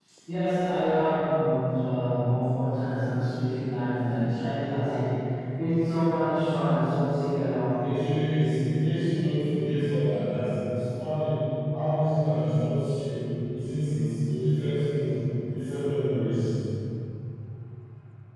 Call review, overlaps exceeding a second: none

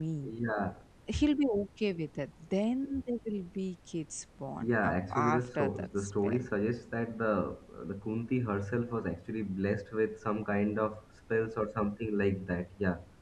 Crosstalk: present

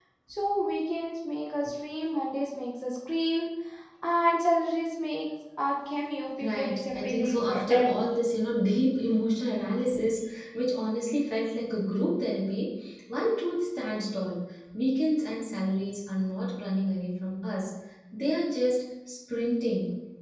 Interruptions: present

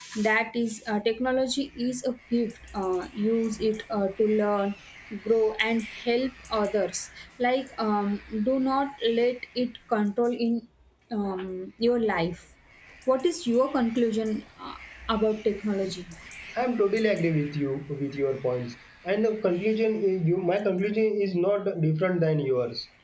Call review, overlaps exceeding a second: none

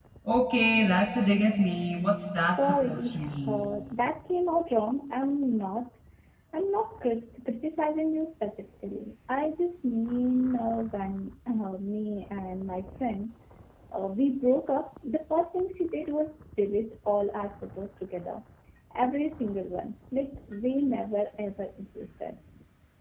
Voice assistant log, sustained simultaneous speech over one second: present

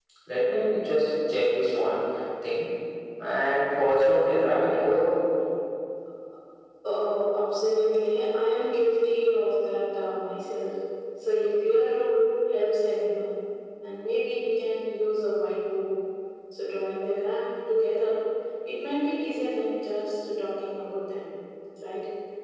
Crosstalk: none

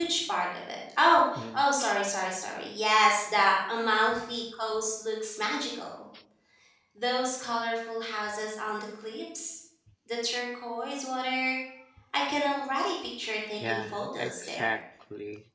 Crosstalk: present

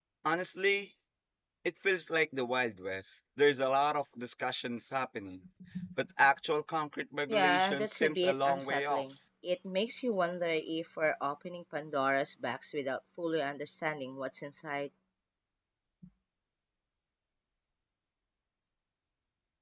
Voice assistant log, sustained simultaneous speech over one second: present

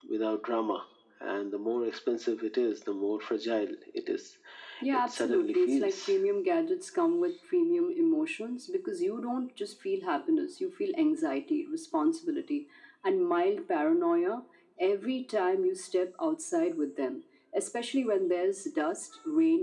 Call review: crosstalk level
present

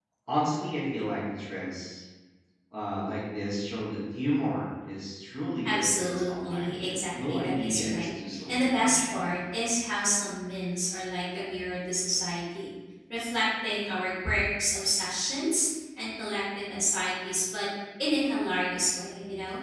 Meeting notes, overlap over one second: present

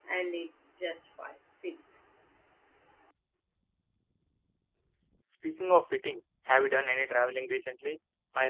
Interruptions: none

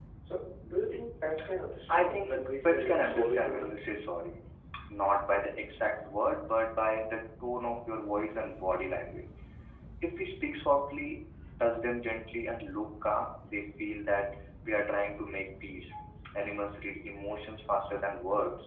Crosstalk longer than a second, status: present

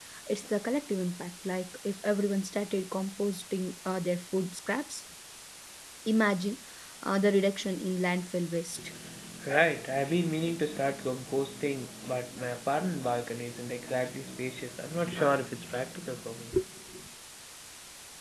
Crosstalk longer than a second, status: none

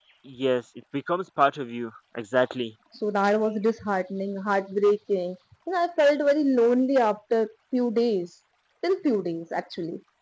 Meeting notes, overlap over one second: none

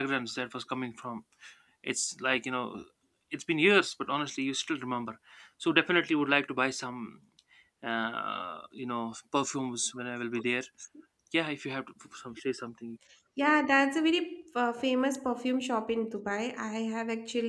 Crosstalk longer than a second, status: none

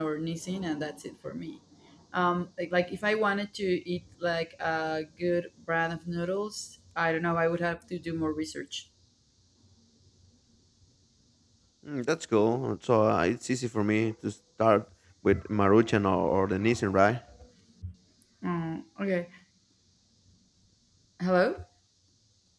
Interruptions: none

